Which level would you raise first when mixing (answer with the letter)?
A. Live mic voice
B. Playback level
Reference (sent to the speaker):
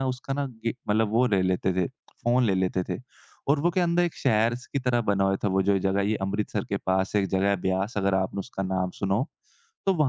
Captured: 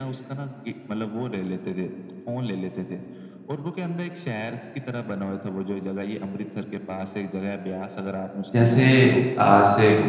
B